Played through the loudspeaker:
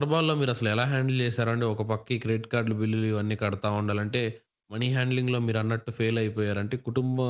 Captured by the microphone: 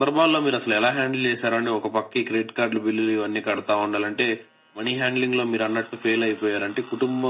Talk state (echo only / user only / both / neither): echo only